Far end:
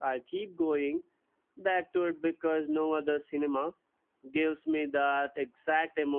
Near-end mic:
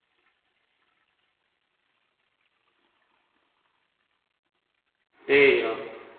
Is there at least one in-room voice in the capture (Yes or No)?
Yes